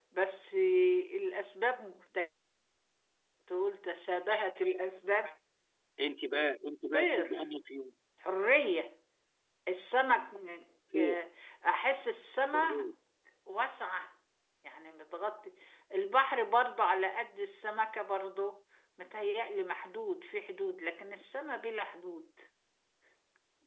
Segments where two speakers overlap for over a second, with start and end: none

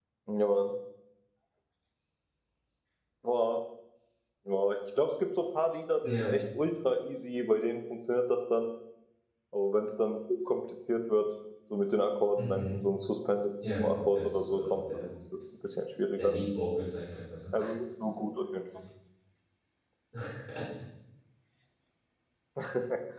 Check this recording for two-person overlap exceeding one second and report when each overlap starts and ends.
13.6-15.1

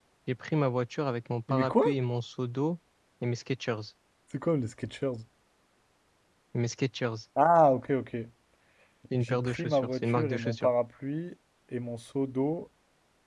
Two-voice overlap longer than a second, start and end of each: 9.2-10.7

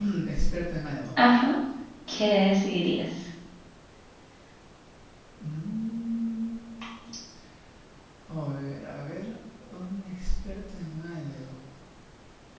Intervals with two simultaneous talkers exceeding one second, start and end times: none

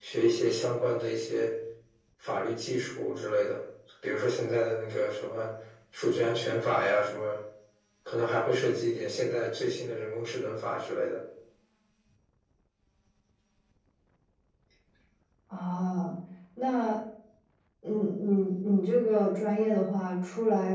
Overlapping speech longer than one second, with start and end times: none

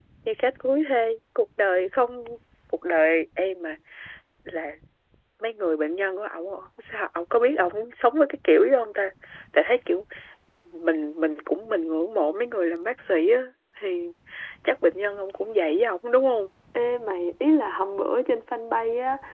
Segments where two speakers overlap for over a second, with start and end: none

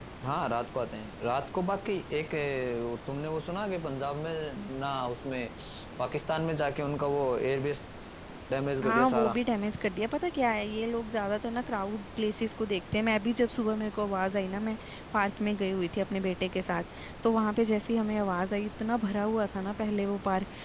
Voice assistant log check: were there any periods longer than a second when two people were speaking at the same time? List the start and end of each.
none

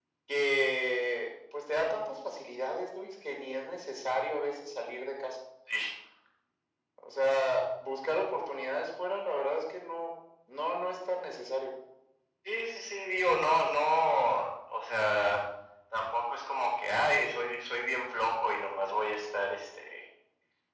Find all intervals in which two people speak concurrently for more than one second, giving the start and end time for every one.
none

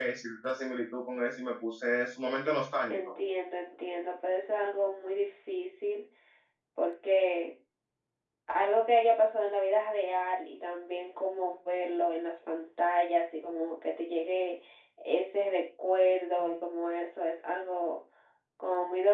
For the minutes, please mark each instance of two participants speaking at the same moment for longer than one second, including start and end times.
none

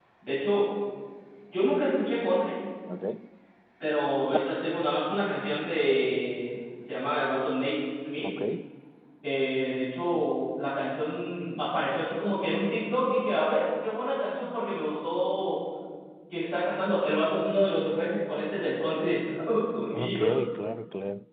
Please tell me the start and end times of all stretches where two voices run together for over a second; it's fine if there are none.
none

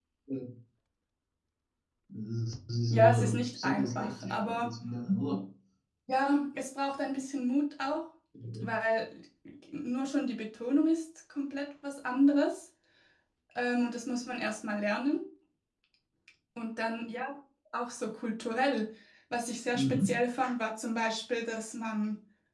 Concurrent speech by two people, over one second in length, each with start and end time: 2.9-4.7

